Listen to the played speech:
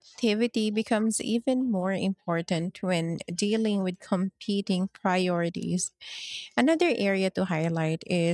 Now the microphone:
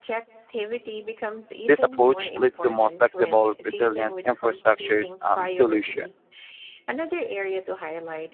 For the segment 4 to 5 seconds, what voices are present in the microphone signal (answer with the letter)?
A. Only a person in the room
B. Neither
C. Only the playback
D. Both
D